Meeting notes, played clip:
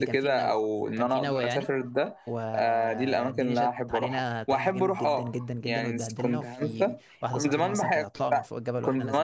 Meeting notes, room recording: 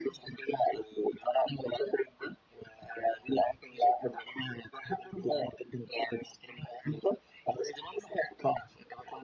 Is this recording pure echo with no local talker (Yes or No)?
Yes